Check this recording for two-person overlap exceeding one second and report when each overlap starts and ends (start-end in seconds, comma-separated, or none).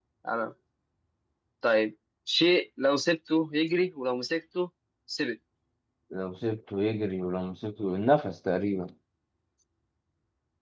none